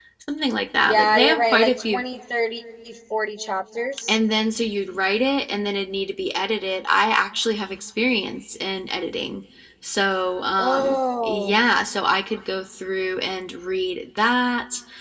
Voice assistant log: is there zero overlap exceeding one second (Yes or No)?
No